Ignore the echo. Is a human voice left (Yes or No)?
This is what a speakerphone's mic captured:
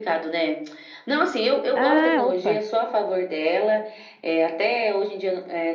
Yes